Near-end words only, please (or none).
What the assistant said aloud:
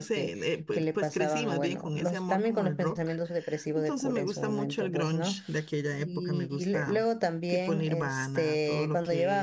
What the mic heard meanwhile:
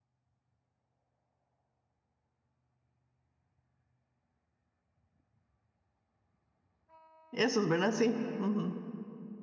Esos, ¿verdad? Sí. ujú,